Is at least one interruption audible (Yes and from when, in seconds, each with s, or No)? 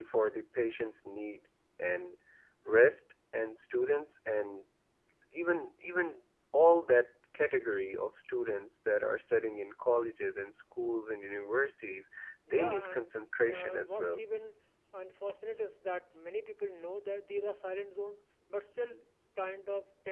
Yes, from 12.5 s